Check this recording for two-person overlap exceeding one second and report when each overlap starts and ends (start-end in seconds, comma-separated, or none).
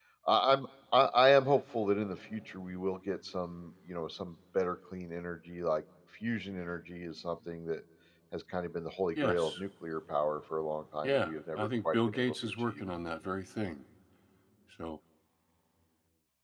11.0-12.8